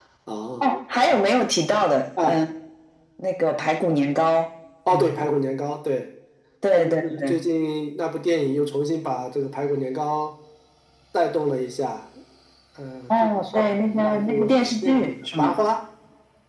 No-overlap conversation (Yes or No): No